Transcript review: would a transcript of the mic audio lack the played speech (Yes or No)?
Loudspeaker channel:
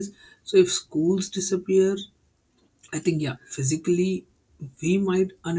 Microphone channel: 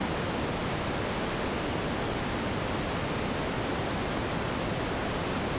Yes